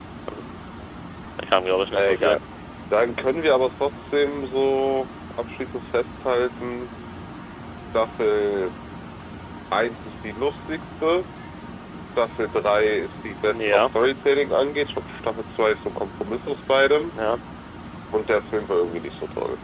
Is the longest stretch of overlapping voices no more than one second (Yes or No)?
Yes